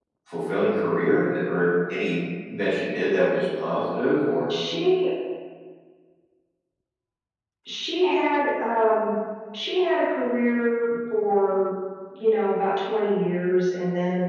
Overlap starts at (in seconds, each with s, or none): none